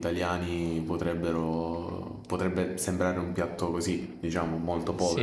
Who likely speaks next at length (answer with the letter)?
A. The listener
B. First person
A